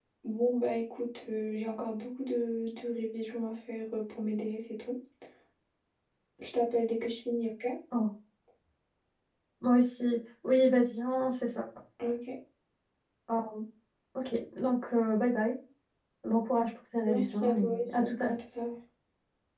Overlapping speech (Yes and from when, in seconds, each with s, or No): Yes, from 17.1 s